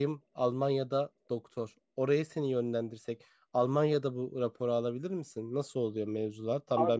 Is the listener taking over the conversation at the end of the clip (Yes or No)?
Yes